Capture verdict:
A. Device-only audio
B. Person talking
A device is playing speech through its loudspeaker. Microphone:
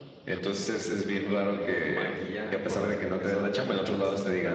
B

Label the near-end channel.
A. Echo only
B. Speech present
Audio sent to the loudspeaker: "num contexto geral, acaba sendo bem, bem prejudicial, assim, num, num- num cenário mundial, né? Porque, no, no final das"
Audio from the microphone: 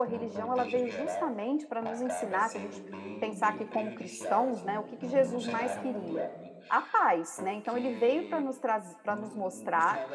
B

